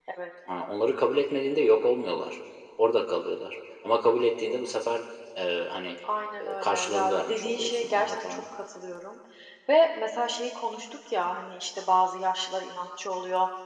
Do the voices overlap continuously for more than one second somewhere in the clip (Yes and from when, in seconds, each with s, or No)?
Yes, from 6.4 s